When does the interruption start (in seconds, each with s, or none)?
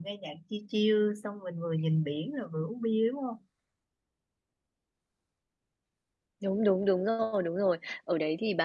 none